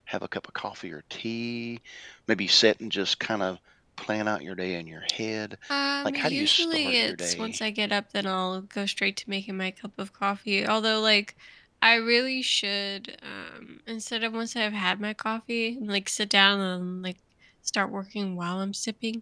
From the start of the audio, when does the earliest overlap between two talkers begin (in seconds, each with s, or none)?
6.0 s